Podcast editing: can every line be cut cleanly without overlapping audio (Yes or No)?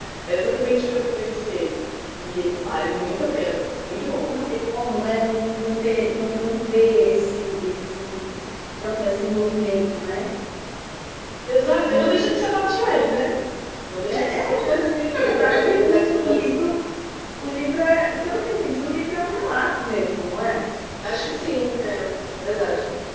No